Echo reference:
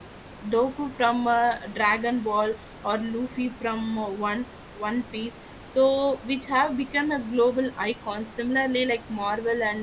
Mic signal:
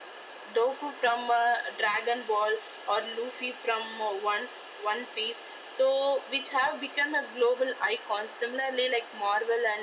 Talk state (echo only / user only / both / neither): echo only